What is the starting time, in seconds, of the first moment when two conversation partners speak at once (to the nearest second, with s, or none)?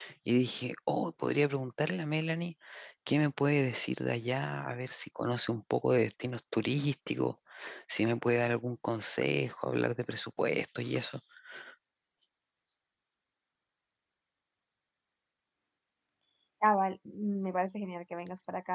none